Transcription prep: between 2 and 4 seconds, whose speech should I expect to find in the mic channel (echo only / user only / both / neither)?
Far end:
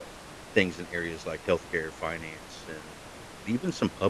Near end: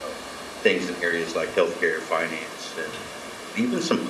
echo only